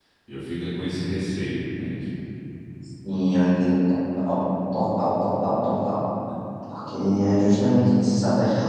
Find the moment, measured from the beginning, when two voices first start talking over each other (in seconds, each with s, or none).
none